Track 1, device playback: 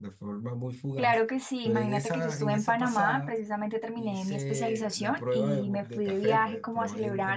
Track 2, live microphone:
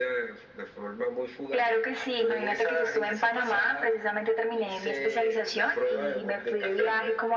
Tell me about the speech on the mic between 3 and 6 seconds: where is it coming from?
echo only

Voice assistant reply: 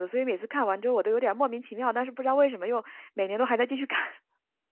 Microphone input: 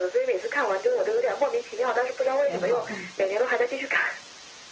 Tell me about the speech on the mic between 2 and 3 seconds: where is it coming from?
both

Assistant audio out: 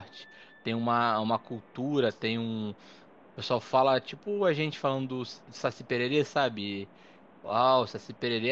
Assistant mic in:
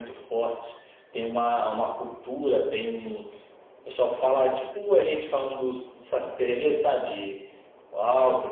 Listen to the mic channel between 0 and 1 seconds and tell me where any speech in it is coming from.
echo only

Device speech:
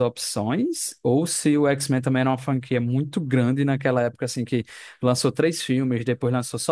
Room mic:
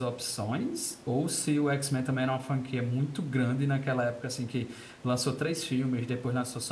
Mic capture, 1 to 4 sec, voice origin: echo only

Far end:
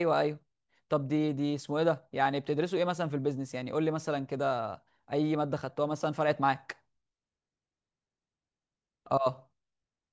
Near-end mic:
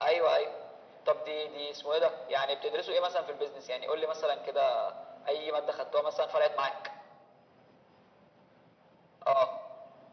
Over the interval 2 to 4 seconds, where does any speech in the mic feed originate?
echo only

